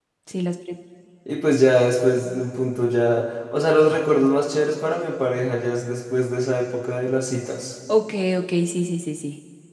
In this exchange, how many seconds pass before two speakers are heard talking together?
none

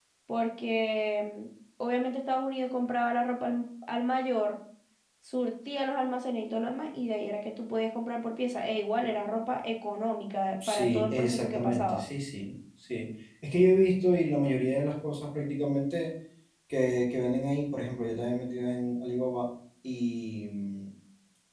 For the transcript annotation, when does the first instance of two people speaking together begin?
10.6 s

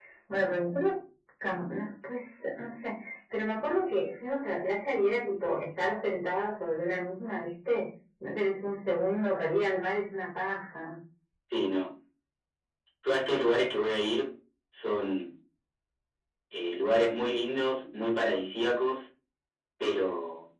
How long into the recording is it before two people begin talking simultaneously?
none

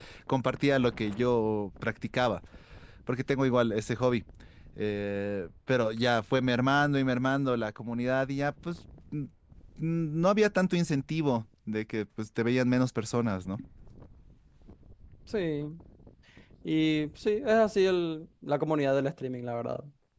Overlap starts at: none

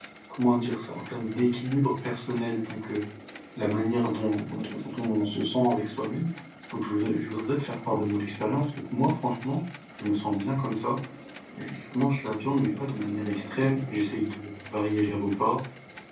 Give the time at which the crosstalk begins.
none

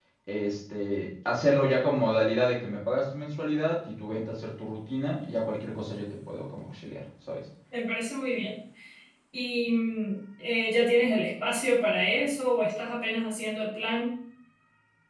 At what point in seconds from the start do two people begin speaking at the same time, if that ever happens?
none

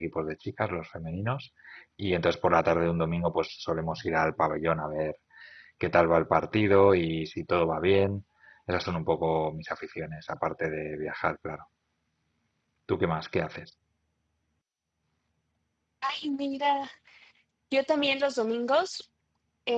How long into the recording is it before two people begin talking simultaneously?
none

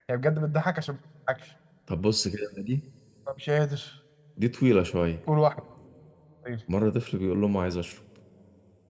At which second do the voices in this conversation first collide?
none

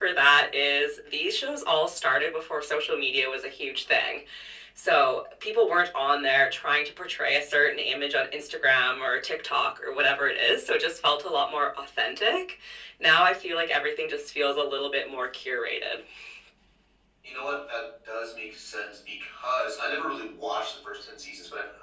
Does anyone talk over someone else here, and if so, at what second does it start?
none

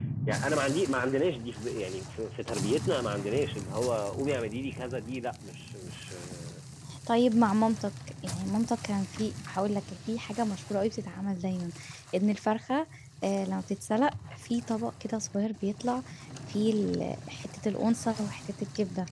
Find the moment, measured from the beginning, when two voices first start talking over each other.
none

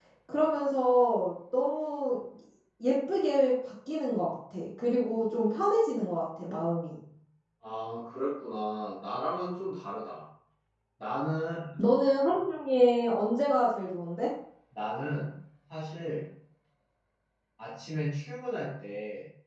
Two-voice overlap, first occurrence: none

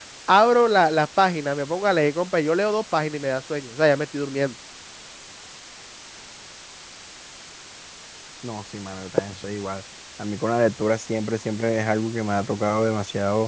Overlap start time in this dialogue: none

